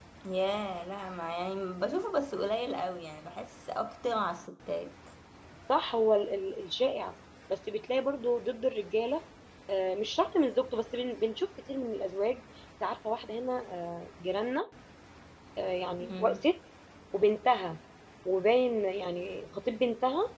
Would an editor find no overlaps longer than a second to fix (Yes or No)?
Yes